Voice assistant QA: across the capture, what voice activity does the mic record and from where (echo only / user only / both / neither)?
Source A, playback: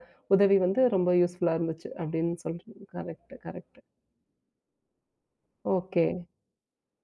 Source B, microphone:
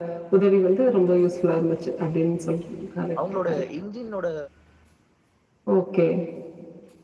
both